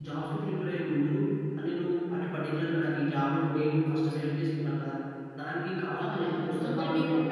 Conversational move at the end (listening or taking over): taking over